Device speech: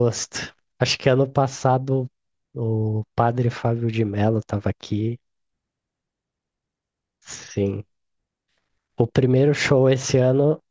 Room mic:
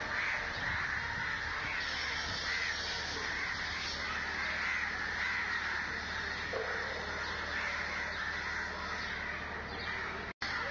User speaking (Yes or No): No